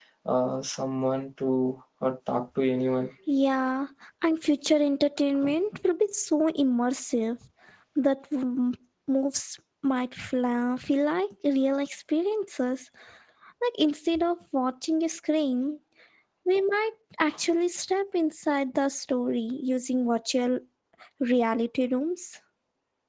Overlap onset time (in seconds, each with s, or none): none